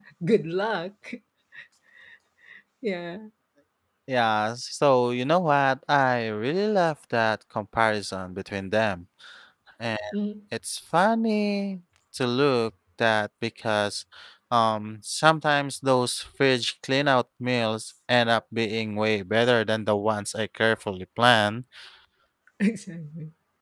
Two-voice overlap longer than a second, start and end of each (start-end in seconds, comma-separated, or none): none